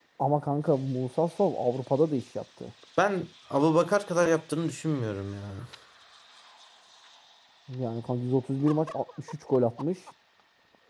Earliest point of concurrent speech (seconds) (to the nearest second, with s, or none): none